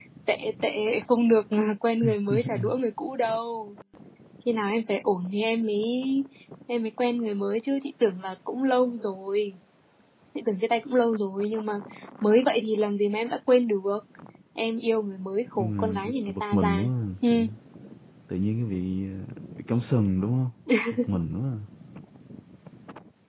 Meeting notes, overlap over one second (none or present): present